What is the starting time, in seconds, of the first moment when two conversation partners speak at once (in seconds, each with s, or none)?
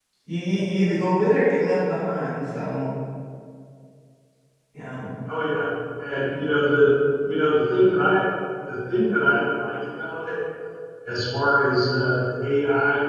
none